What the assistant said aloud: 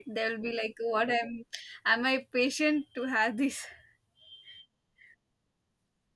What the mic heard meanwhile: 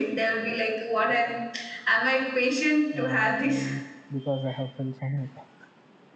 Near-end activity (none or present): present